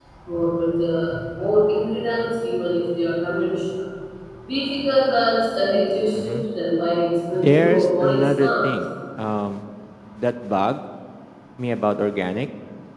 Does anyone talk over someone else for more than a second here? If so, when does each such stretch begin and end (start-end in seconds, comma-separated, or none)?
7.3-8.7